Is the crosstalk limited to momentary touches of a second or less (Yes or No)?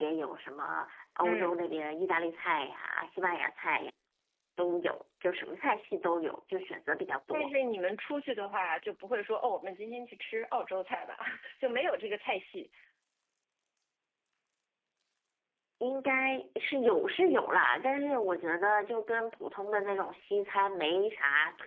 Yes